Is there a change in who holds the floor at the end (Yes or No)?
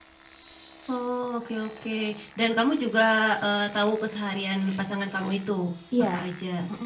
Yes